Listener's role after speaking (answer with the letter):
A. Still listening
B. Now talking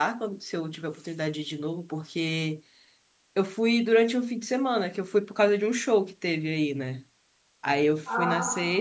A